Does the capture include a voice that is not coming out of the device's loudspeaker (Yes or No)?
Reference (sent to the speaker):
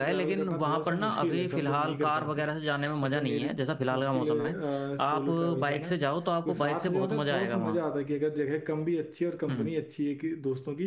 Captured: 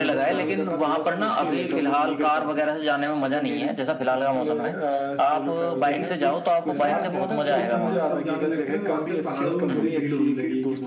Yes